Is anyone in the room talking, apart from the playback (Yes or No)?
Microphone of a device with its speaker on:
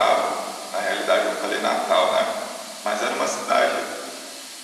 No